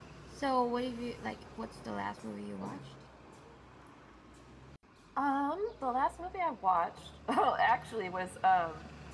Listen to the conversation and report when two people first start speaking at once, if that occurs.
none

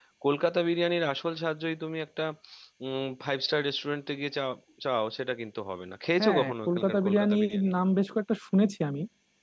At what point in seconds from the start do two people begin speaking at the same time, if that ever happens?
6.2 s

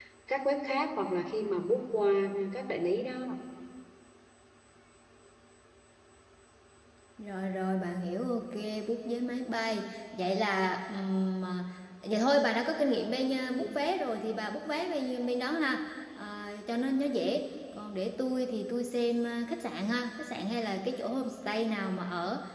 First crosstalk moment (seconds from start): none

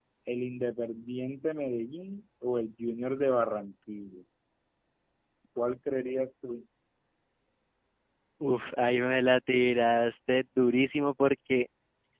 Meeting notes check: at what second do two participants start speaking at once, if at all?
none

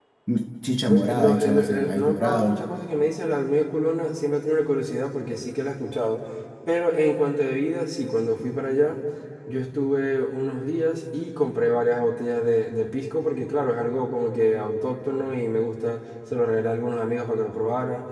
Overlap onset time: 0.9 s

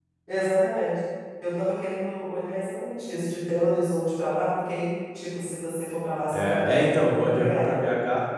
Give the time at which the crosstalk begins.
6.3 s

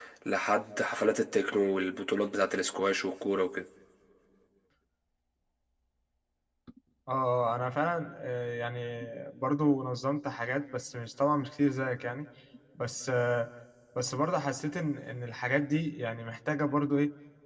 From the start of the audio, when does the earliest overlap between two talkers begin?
none

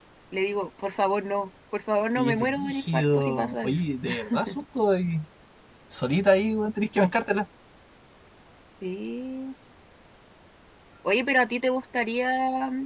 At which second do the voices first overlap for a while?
2.2 s

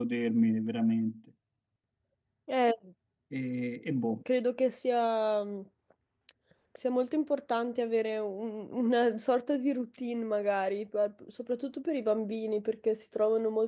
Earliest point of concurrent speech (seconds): none

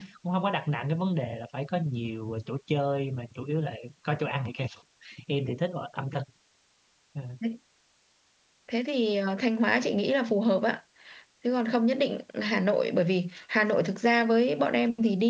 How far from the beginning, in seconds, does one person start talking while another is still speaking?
none

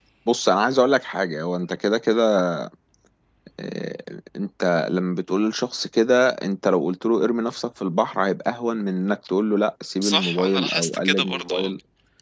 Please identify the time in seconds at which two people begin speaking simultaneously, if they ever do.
10.0 s

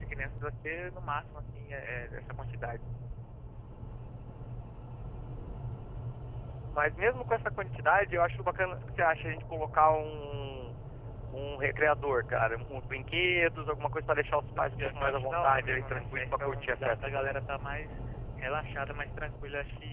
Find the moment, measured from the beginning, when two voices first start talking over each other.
14.6 s

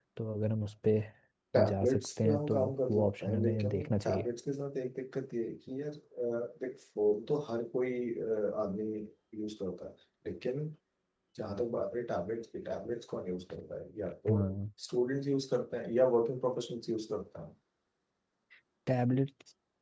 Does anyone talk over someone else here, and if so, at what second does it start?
1.6 s

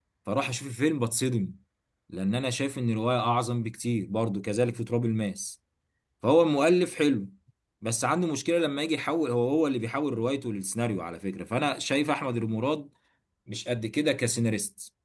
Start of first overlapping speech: none

